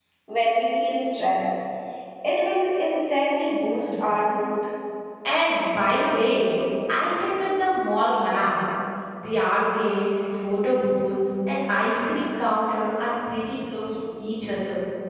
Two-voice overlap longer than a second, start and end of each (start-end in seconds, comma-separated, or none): none